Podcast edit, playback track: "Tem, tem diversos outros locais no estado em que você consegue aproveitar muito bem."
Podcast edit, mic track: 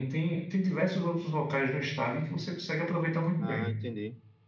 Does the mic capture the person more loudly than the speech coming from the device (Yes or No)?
No